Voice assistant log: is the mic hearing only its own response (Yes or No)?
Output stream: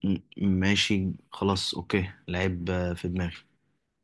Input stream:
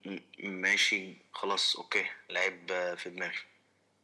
Yes